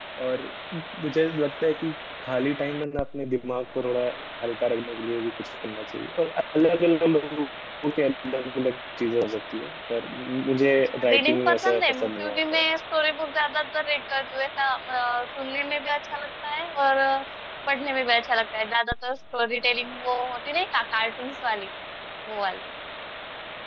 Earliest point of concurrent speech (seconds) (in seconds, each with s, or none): 10.9 s